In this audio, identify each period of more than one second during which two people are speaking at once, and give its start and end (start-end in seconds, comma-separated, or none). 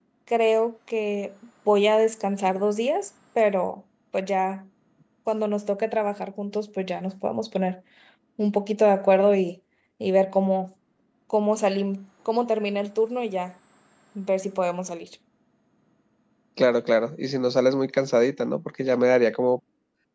none